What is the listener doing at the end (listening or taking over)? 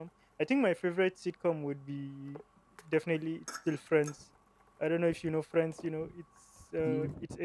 listening